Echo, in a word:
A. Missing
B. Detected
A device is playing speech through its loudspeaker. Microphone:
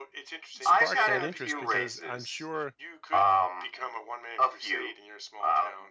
B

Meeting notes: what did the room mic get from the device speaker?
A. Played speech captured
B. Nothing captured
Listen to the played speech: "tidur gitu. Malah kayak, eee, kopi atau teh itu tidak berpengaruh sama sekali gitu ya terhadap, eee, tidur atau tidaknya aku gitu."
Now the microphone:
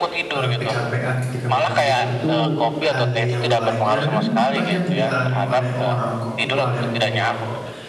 A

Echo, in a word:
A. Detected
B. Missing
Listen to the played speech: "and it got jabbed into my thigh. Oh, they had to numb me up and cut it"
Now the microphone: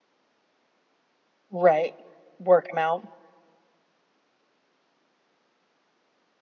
B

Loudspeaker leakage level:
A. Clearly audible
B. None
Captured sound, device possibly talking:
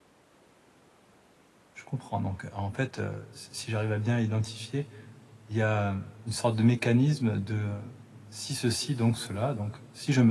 B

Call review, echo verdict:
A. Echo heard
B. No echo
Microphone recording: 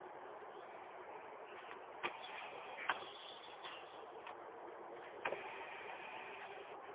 B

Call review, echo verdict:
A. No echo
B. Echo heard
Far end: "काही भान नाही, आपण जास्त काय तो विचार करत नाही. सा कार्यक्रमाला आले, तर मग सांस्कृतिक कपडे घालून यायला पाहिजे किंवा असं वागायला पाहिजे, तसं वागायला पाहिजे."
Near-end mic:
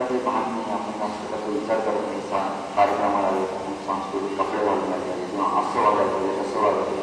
B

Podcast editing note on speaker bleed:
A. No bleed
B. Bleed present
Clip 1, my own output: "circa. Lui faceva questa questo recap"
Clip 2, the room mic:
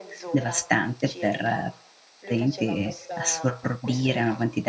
B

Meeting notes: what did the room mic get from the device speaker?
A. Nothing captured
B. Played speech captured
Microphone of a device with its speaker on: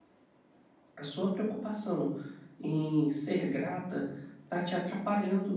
A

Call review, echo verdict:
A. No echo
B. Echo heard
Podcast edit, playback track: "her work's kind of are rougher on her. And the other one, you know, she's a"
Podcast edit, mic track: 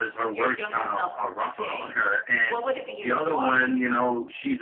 B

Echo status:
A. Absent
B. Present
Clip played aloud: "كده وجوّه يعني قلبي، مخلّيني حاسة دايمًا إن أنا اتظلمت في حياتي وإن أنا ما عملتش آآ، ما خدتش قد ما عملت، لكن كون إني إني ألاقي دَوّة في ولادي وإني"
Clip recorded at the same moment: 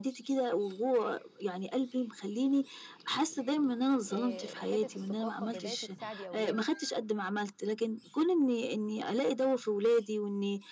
B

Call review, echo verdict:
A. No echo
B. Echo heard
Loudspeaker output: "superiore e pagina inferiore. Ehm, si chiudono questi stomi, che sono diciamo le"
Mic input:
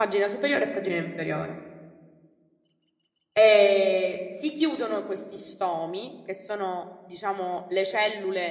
B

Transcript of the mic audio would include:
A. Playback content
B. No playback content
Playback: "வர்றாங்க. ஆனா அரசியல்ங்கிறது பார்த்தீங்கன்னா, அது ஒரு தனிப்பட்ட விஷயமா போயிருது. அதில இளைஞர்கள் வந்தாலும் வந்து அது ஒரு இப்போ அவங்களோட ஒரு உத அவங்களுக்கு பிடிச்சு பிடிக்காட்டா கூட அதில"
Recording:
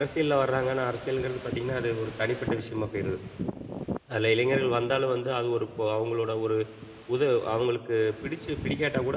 A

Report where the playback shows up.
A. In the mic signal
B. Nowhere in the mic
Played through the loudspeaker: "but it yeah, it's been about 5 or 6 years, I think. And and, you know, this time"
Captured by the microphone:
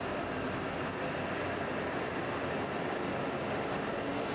B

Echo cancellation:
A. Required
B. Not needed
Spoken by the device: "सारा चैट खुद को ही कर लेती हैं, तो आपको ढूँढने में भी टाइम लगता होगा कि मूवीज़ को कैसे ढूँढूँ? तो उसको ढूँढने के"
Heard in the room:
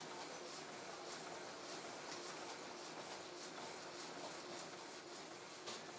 B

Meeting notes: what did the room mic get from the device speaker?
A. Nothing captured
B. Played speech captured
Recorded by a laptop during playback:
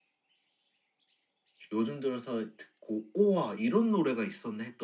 A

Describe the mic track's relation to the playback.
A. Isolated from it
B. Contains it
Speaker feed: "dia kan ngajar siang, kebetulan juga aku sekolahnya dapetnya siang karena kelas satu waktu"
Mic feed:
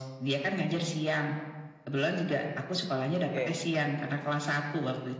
B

